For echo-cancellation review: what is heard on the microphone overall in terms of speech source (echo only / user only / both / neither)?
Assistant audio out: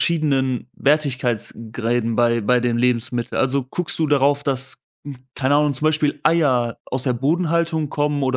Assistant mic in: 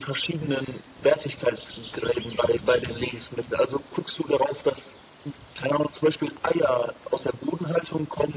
echo only